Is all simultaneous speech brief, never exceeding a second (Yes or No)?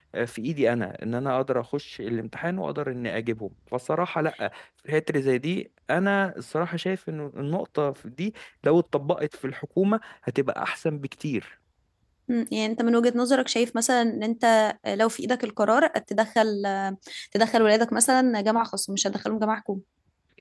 Yes